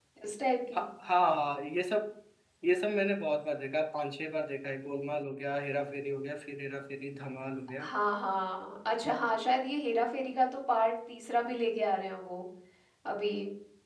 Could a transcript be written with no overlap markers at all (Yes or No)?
Yes